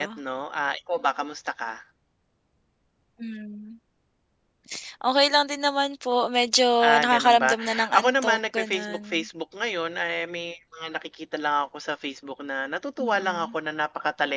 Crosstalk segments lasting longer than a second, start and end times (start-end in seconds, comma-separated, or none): 7.0-9.0